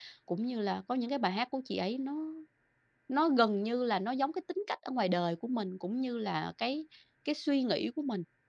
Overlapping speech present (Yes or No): No